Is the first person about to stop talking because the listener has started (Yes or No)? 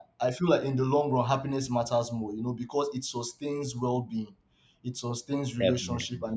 No